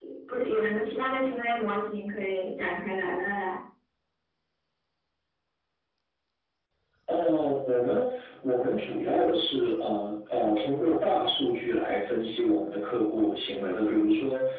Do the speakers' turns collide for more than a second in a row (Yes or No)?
No